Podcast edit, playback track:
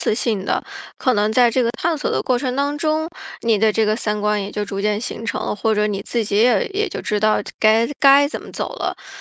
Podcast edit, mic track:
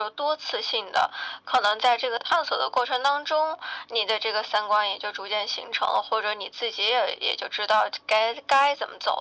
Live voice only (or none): none